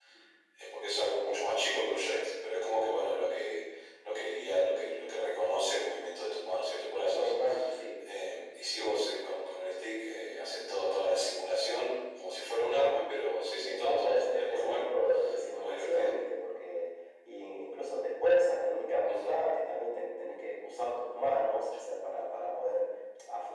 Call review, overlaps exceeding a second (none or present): present